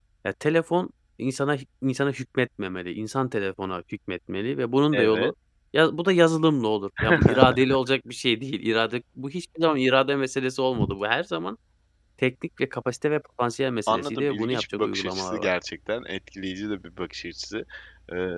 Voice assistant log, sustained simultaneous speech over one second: present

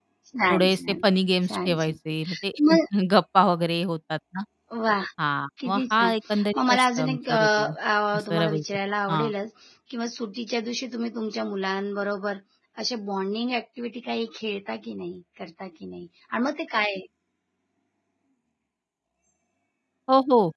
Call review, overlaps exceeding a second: present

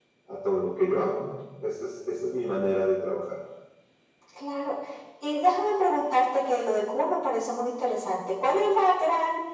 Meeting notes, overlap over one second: none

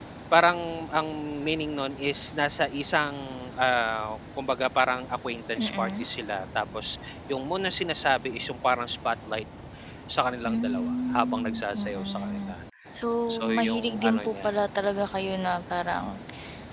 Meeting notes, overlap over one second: present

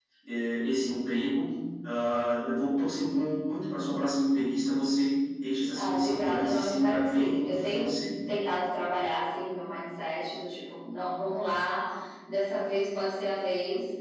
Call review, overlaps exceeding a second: present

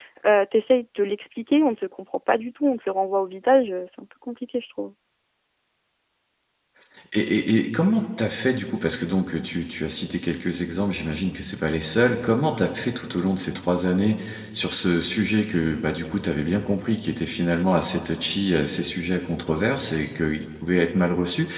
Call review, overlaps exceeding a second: none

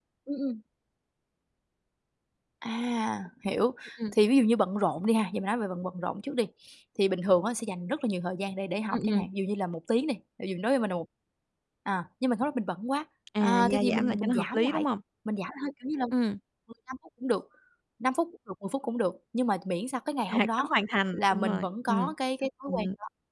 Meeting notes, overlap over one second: present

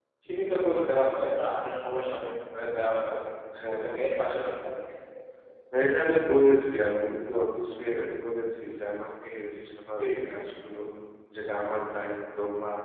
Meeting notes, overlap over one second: none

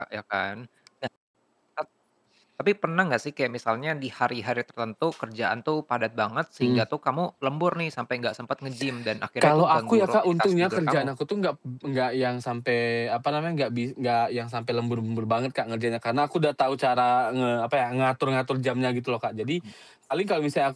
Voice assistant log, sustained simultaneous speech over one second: present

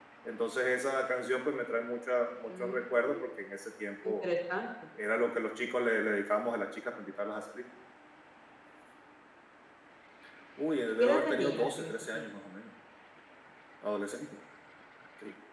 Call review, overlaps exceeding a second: present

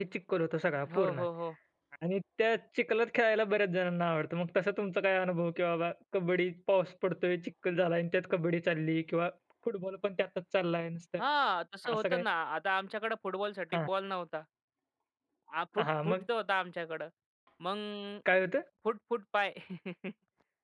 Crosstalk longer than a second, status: none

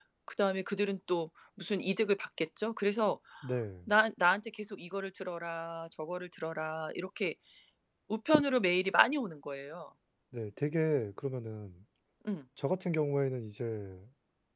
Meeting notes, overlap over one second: none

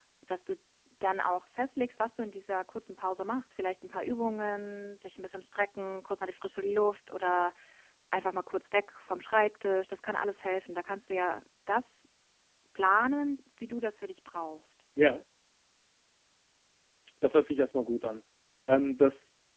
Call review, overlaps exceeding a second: none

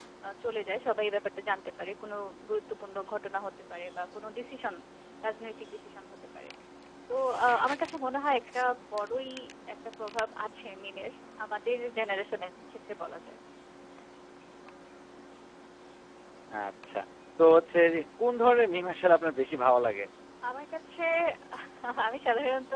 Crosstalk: none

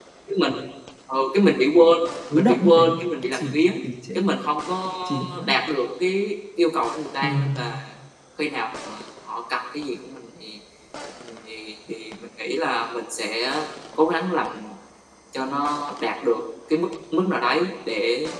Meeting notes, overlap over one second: present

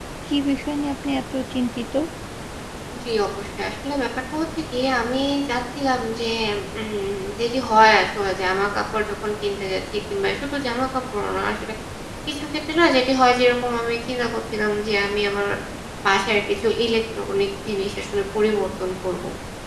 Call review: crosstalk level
none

